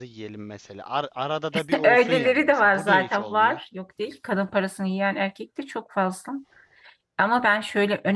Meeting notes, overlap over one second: present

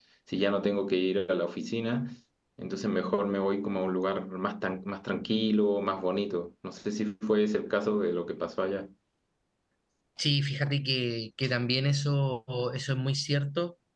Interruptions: none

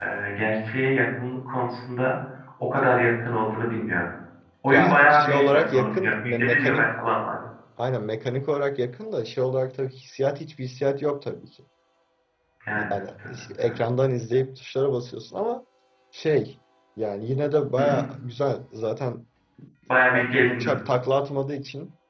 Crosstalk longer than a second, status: present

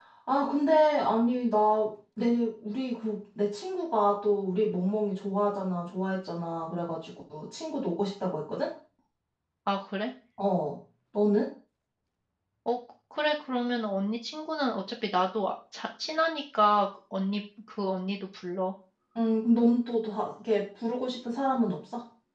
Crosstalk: none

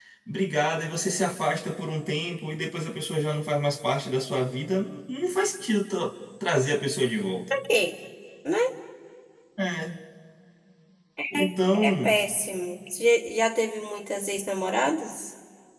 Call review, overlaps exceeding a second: none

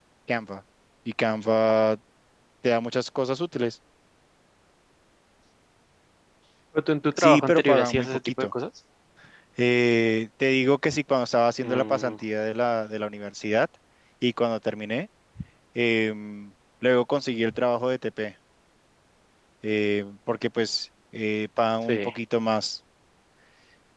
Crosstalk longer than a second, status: present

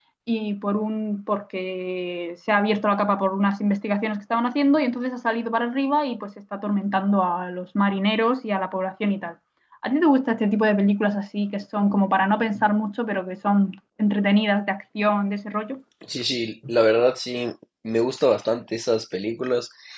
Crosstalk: none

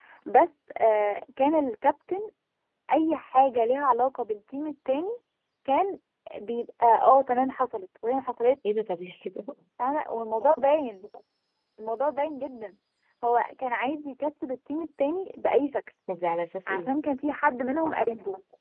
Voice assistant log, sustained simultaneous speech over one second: none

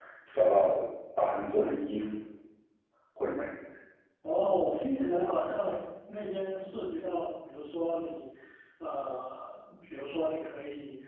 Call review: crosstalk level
none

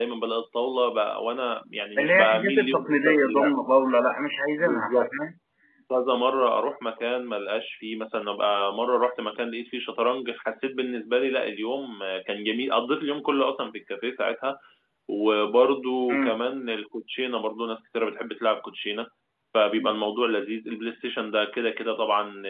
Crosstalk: present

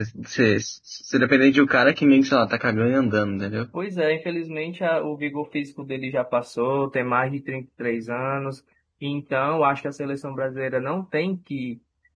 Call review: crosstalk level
none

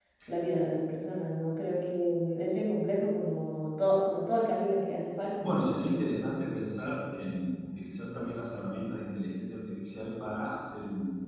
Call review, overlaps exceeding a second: none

